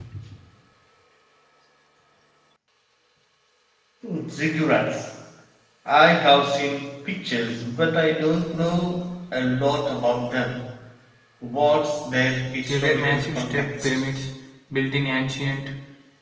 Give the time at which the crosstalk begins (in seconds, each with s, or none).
12.6 s